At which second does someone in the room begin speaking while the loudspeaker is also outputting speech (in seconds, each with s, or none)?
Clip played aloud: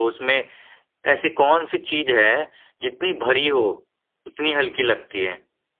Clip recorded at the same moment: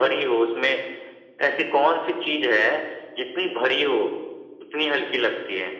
none